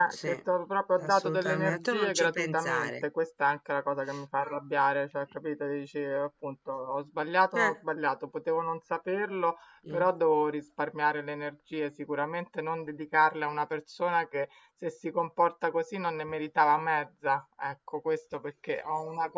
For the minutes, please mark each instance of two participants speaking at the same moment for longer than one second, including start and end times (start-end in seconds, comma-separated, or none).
1.0-3.0